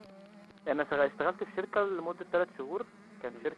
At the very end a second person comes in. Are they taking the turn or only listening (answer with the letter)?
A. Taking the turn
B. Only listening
B